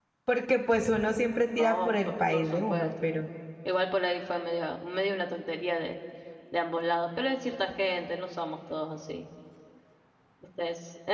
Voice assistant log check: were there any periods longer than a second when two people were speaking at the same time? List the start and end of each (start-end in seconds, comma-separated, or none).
1.6-3.1